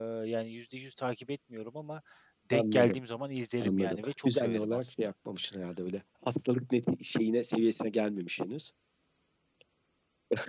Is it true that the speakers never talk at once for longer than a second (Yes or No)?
No